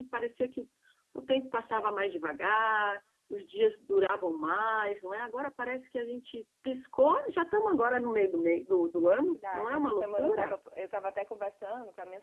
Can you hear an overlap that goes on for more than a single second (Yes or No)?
Yes